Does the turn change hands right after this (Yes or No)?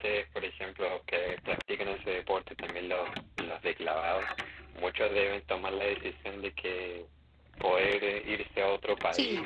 No